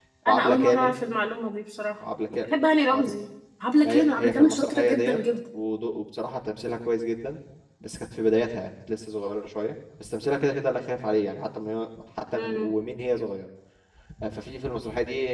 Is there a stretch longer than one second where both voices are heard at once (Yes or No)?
Yes